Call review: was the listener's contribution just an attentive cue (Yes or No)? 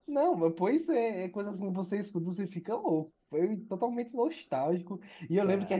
Yes